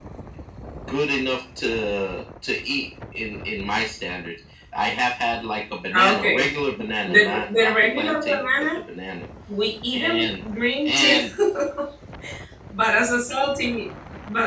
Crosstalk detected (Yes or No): Yes